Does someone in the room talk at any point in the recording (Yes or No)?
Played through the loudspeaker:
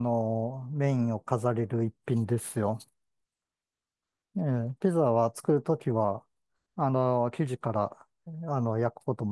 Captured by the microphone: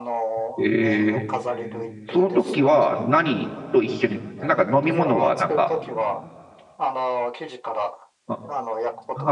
Yes